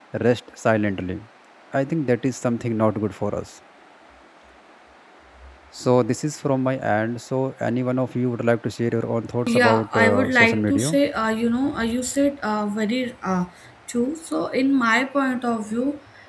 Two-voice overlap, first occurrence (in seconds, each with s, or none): 9.5 s